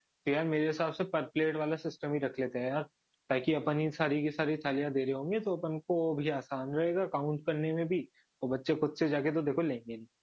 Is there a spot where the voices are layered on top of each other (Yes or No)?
No